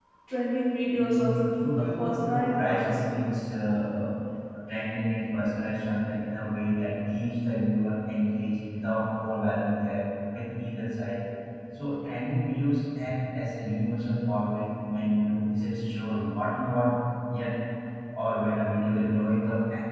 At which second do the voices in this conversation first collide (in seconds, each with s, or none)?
1.0 s